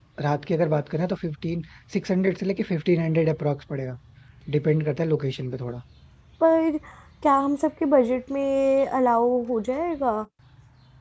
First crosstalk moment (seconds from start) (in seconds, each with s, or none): none